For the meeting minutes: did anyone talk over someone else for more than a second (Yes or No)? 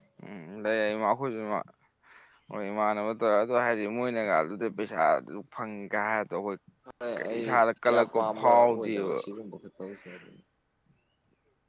Yes